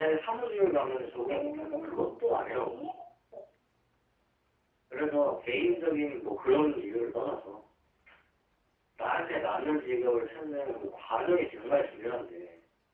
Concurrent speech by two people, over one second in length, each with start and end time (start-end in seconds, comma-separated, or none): 1.1-2.8